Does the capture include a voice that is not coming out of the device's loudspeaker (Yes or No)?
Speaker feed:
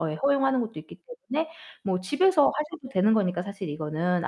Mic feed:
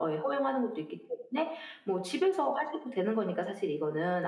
No